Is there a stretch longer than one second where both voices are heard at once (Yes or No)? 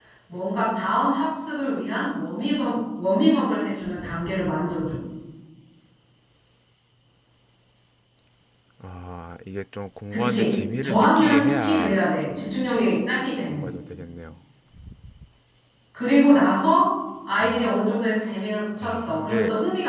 Yes